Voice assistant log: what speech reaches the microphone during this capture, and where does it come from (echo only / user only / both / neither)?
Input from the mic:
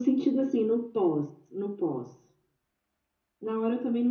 echo only